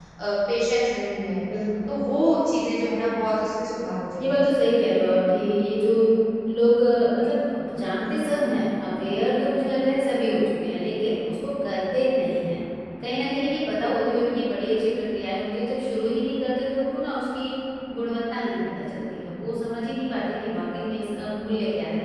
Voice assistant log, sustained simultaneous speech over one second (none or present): none